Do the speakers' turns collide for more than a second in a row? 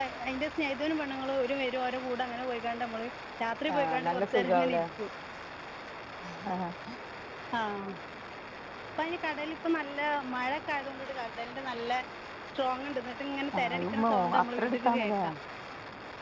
Yes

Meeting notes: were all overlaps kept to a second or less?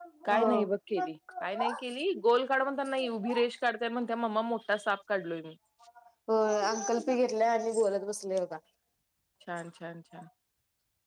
Yes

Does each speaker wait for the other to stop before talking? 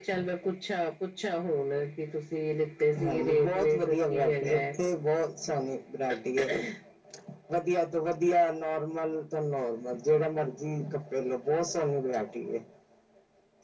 No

